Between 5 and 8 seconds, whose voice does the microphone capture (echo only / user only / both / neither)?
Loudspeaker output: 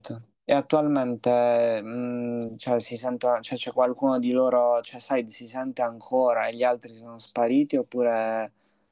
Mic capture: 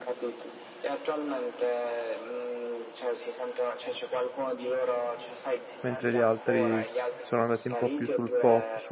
both